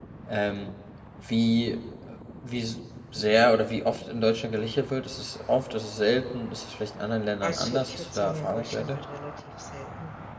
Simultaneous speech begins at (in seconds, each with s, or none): 7.4 s